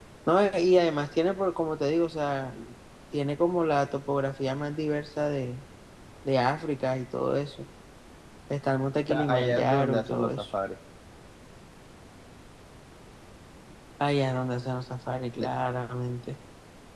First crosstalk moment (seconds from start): 9.1 s

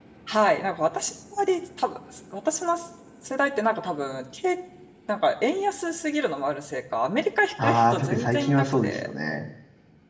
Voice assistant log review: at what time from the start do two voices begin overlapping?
7.6 s

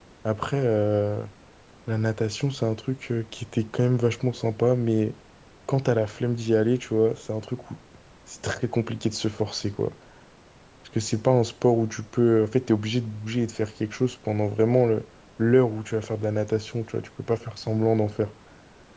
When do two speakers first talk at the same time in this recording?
none

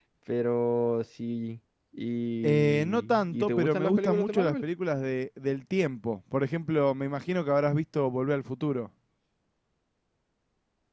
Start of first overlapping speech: 2.4 s

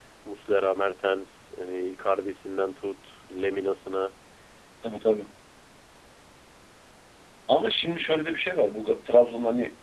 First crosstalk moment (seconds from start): none

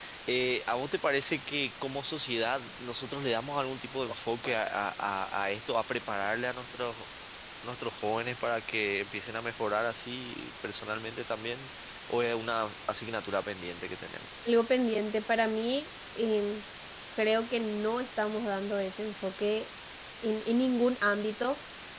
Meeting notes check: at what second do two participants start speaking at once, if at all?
none

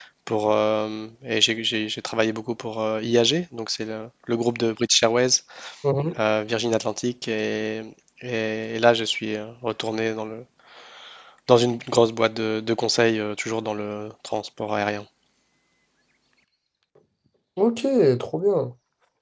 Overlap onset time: none

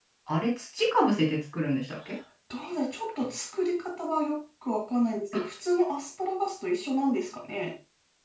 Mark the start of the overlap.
none

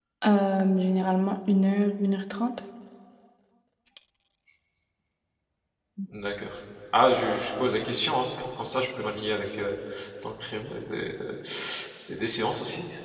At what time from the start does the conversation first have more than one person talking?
none

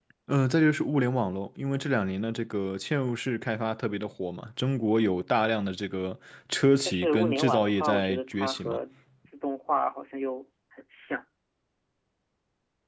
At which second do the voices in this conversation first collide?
6.8 s

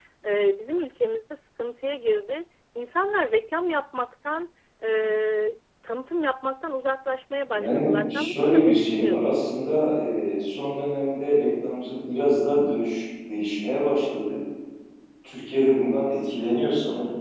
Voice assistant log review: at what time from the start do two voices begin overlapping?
7.5 s

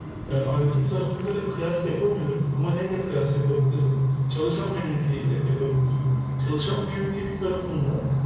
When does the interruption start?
none

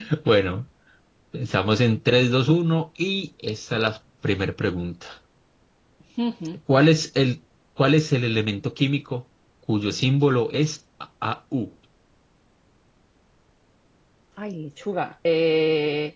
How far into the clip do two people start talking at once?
none

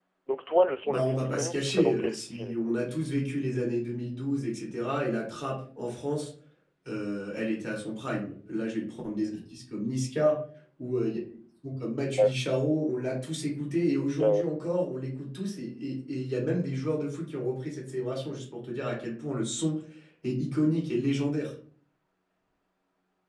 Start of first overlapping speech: 0.8 s

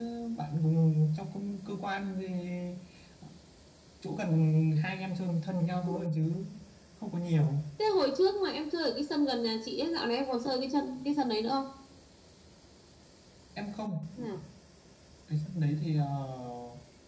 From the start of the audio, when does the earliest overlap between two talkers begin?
none

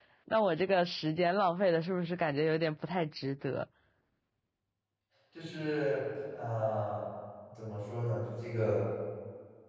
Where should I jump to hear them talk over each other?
none

